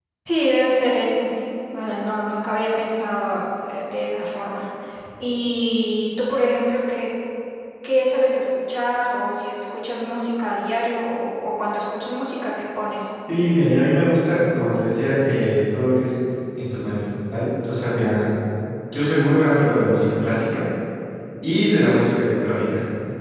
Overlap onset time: none

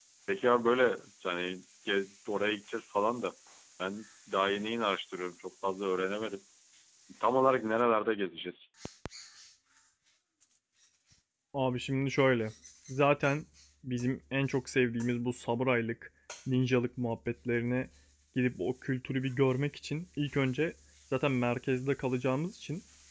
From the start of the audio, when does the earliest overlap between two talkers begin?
none

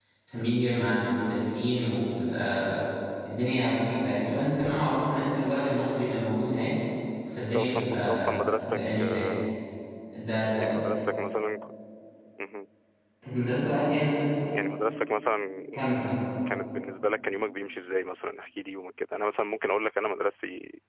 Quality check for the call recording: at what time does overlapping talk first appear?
7.5 s

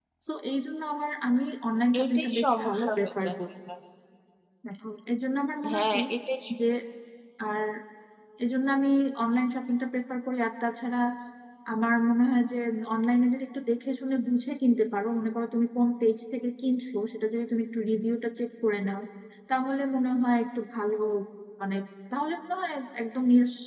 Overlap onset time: 2.0 s

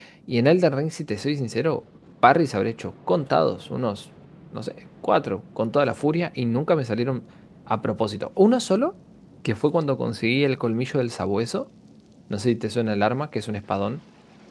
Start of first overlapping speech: none

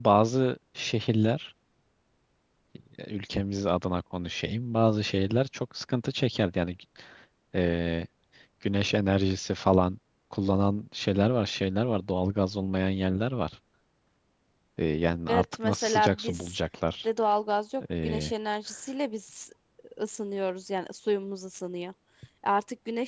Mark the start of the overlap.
15.3 s

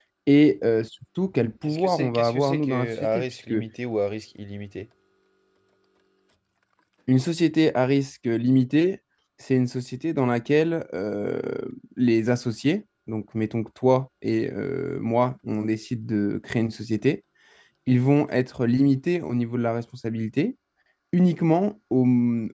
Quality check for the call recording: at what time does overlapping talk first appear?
1.6 s

